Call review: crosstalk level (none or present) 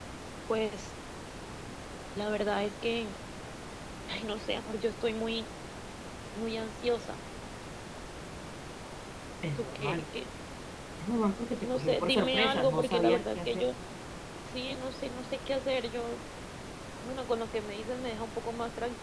present